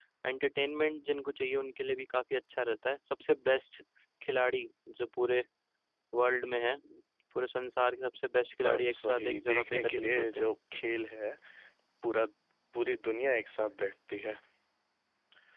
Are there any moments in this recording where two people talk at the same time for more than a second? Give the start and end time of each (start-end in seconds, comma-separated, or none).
8.6-10.5